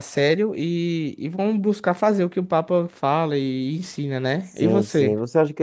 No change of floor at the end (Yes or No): No